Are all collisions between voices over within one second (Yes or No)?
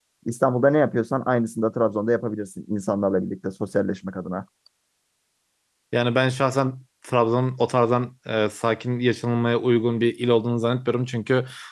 Yes